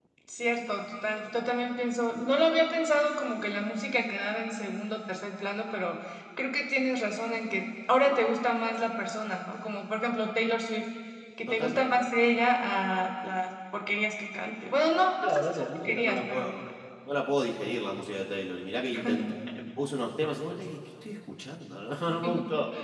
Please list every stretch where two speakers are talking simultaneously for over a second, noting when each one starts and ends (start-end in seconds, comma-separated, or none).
15.2-16.5